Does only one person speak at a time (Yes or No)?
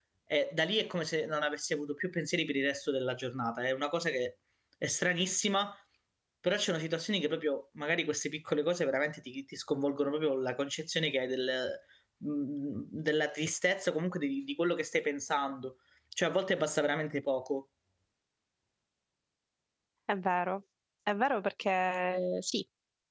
Yes